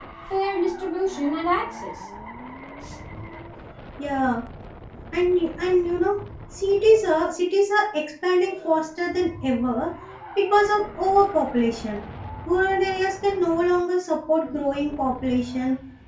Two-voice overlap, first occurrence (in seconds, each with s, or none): none